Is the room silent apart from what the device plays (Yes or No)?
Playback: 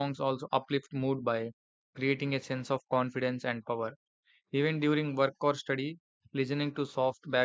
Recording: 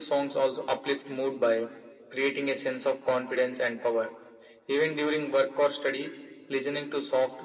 Yes